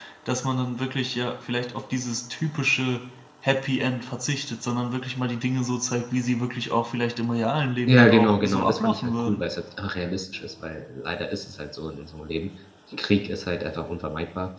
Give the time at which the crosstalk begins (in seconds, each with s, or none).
7.9 s